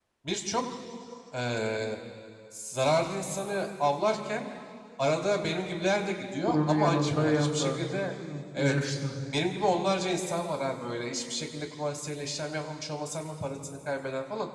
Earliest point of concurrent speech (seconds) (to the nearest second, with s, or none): 6 s